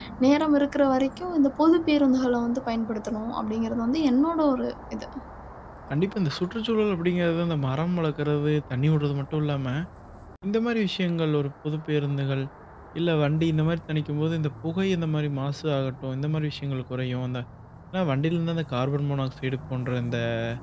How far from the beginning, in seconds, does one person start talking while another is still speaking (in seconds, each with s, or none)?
none